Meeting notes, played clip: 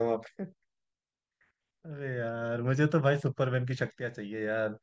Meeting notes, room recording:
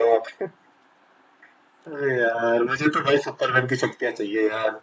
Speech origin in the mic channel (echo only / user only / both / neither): echo only